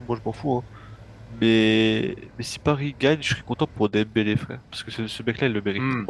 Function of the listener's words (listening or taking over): listening